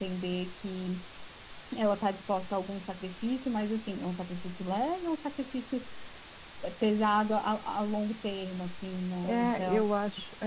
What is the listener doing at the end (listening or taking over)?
taking over